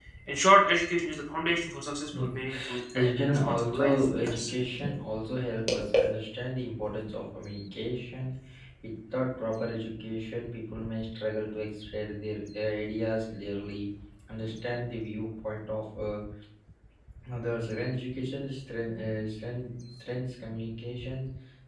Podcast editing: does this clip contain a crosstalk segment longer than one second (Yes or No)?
Yes